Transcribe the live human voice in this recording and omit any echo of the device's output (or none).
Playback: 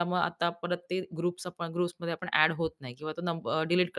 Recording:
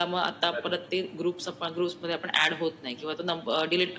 बरोबर.